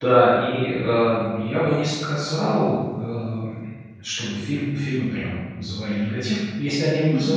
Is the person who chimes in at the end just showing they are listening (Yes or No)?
Yes